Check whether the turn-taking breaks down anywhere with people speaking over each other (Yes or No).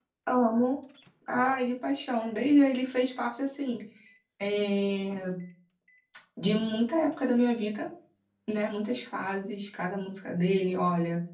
No